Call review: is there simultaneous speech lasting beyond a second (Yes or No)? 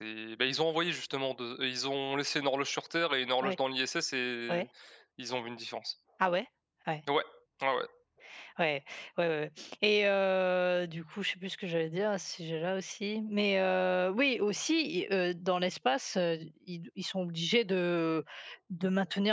No